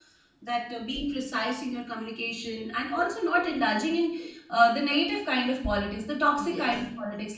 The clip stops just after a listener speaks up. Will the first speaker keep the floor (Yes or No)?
Yes